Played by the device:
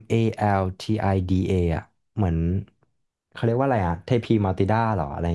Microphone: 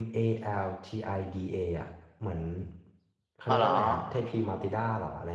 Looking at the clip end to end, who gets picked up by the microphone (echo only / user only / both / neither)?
both